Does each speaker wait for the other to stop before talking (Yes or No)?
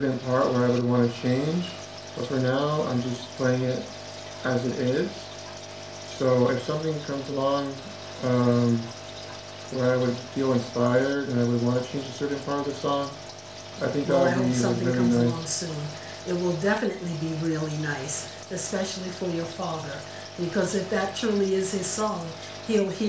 No